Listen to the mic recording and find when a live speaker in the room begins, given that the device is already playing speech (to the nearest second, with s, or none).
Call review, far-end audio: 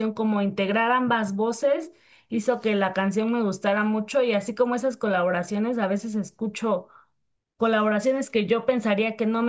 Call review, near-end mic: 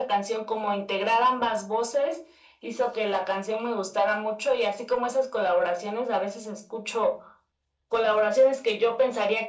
none